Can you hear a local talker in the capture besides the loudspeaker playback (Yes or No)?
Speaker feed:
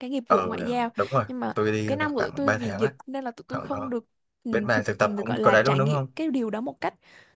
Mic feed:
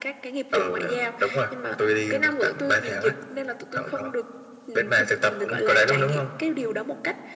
No